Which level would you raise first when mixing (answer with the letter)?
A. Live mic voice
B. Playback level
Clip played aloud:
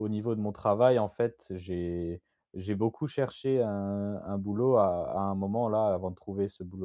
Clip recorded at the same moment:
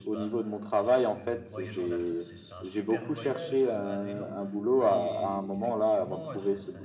A